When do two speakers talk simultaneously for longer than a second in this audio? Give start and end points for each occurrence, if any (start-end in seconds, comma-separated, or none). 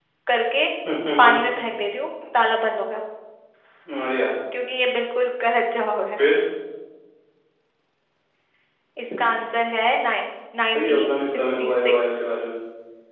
10.7-12.2